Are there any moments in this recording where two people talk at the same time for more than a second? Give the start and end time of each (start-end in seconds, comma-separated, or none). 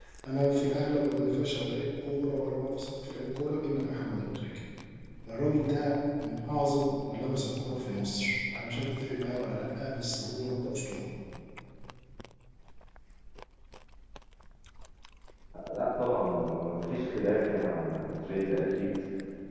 none